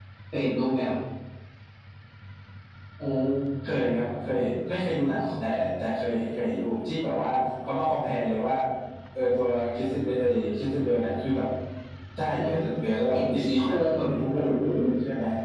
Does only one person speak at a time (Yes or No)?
No